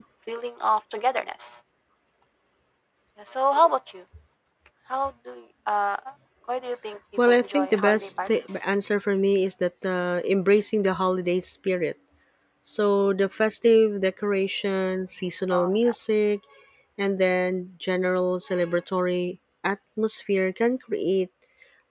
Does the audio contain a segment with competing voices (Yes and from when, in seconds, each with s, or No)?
Yes, from 7.3 s